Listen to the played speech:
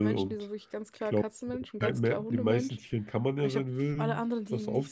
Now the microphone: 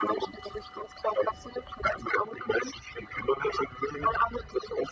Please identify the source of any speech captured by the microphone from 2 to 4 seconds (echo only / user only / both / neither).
echo only